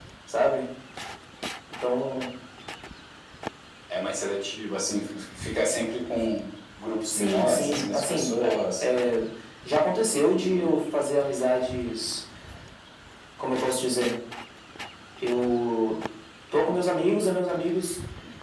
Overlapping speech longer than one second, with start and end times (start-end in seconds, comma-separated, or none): 7.1-8.3